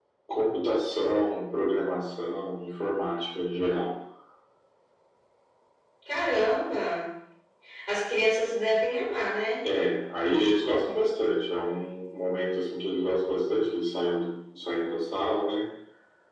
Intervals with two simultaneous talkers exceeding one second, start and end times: none

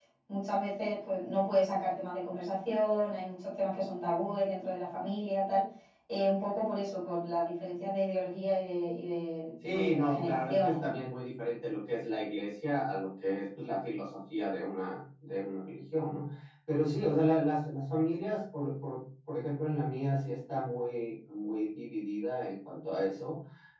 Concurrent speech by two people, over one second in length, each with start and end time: 9.6-10.9

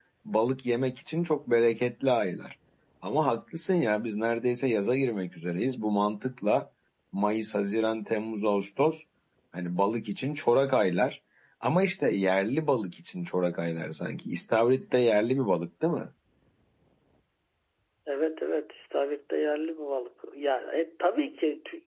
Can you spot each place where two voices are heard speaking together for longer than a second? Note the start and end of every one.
none

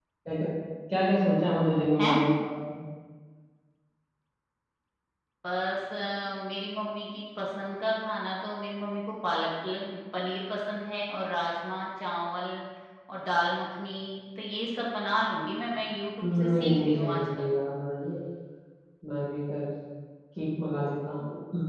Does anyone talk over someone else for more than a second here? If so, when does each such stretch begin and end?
16.2-17.5

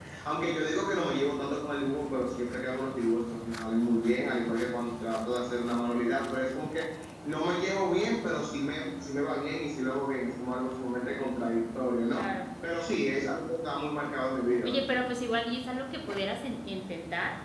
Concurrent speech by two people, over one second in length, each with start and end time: none

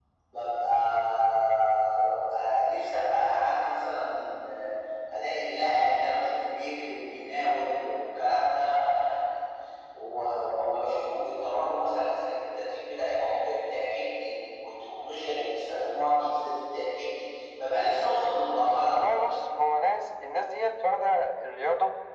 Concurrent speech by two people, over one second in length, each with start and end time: none

